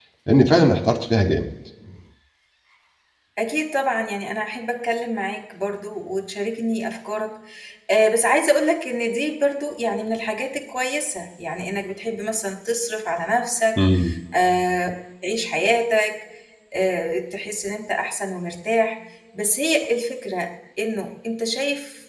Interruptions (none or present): none